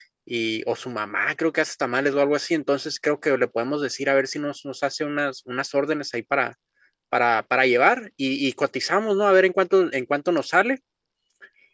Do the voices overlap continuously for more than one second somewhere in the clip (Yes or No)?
No